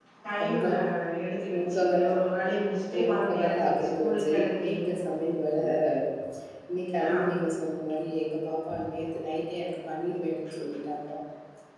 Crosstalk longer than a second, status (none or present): present